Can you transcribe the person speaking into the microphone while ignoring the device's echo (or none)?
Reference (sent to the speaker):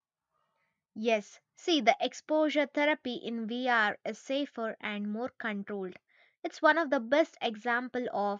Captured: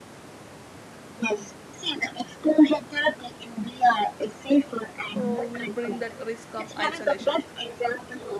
uh, will bring that risk of isolation